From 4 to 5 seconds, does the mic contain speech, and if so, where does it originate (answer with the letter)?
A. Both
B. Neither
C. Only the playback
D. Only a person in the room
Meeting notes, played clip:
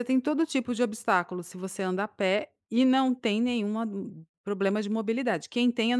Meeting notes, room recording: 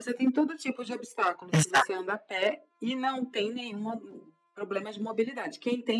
C